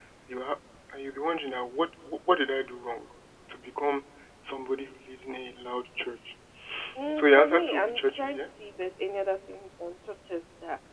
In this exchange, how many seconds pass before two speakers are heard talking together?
7.1 s

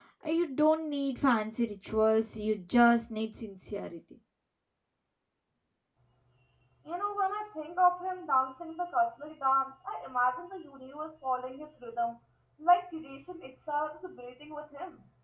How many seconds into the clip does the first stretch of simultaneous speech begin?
none

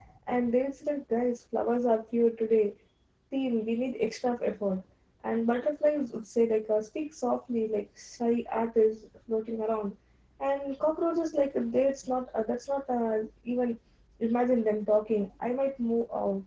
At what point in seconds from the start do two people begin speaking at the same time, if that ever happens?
none

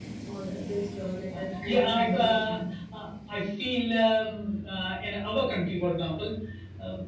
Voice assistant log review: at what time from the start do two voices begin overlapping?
1.3 s

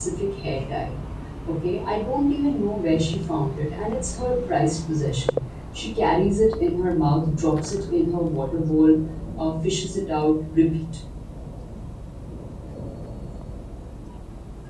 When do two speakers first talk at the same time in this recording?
none

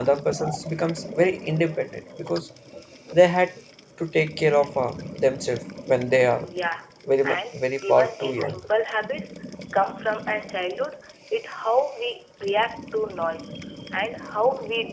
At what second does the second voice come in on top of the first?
7.2 s

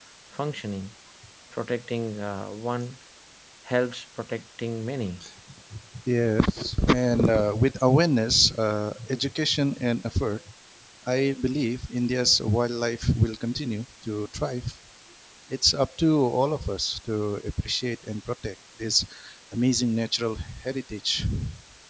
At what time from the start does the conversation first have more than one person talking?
none

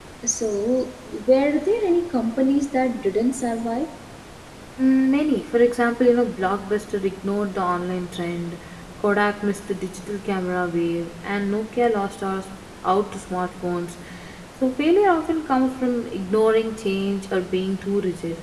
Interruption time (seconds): none

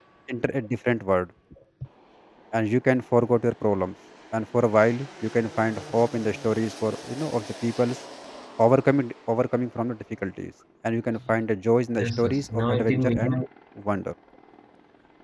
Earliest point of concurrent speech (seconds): 12.0 s

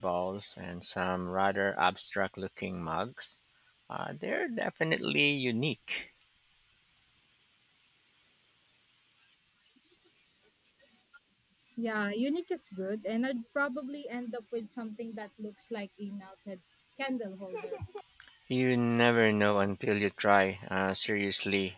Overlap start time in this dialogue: none

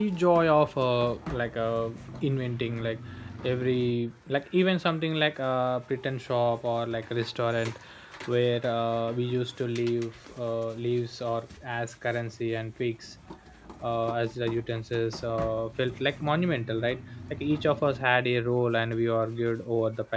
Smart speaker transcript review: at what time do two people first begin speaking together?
none

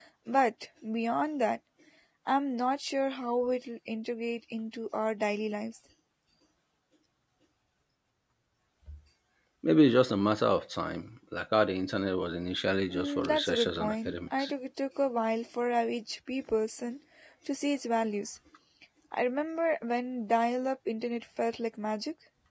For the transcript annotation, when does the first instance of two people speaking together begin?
12.9 s

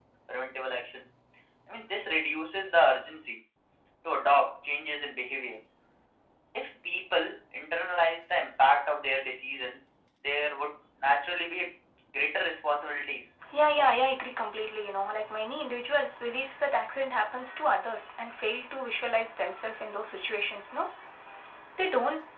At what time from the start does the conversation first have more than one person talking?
none

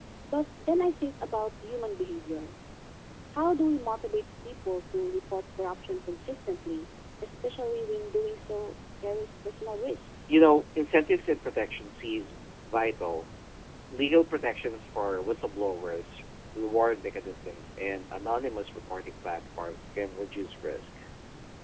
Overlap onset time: none

